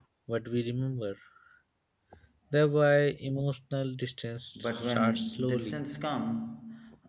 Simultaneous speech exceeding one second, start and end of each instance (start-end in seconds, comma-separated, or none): 4.6-5.8